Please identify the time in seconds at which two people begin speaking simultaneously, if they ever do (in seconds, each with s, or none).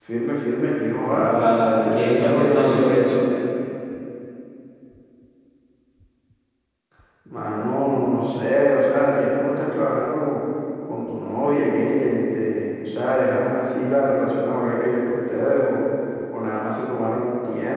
1.0 s